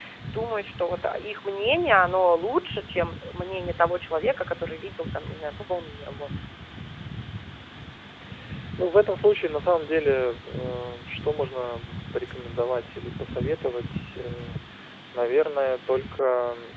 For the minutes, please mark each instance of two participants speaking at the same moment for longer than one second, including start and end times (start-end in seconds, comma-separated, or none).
none